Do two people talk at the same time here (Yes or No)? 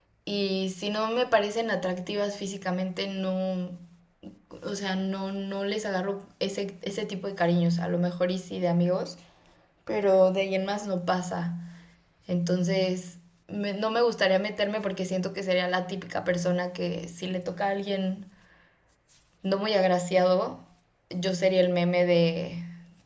No